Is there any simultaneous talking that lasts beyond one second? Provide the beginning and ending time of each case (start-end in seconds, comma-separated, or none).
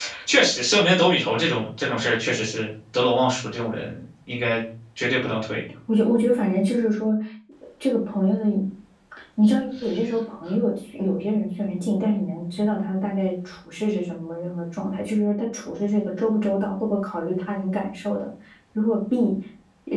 none